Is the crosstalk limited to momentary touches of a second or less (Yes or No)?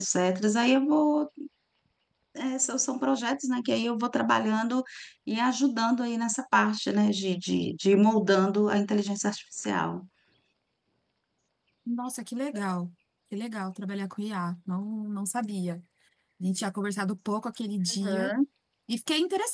Yes